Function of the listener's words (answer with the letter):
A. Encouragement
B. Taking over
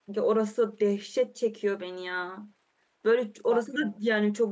A